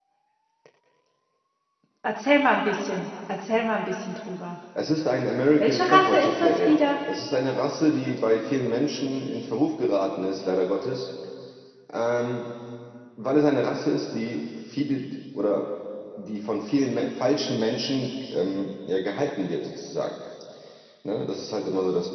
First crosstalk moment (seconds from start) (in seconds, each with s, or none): 5.6 s